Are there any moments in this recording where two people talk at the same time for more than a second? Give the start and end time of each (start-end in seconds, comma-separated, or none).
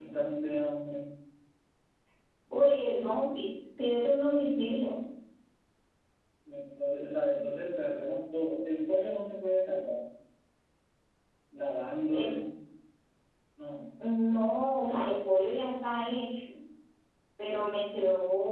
none